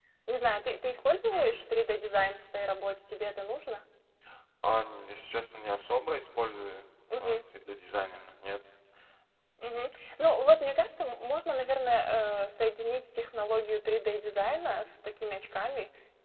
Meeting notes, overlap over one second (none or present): none